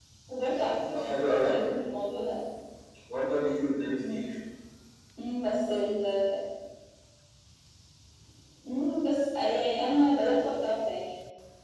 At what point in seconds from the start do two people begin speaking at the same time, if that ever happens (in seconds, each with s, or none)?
0.6 s